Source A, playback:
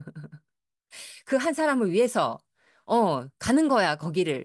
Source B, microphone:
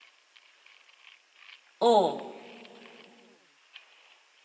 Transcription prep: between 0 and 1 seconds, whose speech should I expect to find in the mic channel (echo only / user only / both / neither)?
neither